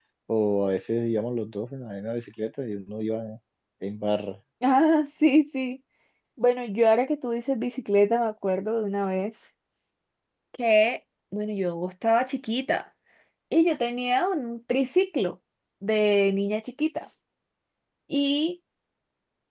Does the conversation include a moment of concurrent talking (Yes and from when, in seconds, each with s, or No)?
No